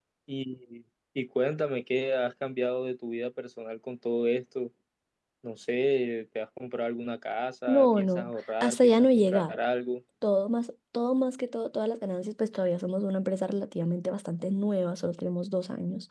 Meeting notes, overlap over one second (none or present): present